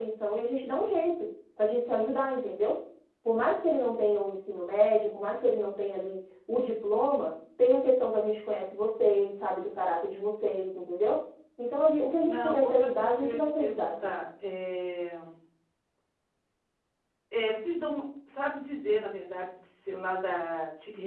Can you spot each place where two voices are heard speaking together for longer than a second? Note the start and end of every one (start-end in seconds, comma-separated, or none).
12.2-14.1